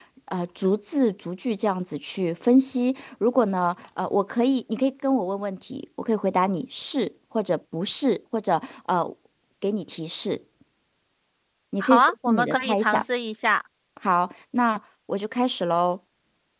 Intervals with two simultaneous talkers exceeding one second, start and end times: 11.8-13.0

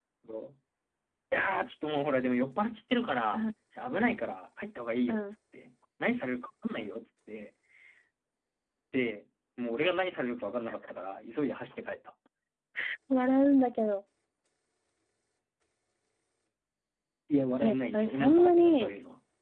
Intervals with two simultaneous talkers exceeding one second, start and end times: 17.6-18.9

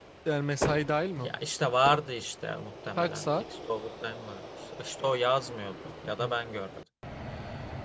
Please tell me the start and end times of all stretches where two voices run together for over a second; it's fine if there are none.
none

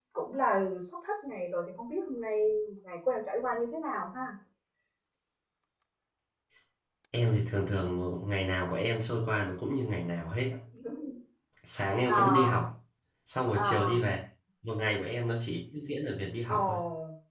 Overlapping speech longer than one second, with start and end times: none

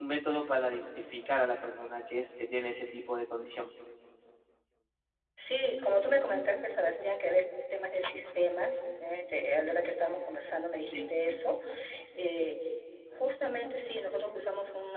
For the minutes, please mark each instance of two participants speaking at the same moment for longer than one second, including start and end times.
none

